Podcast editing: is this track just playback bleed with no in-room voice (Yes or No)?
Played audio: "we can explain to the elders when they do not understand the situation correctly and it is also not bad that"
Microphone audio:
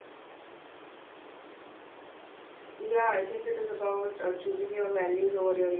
No